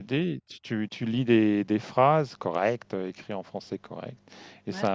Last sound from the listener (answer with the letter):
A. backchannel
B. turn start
A